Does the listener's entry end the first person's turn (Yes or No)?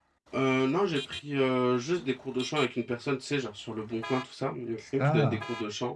No